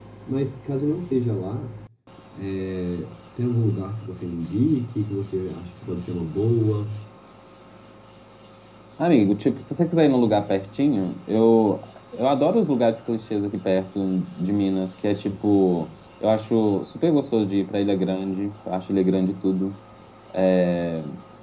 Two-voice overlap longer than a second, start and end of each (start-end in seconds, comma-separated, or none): none